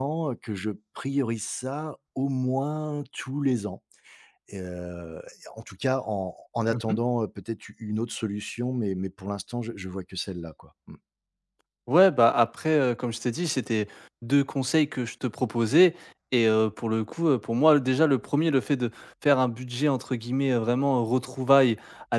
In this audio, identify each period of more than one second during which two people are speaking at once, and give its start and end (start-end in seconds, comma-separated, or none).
none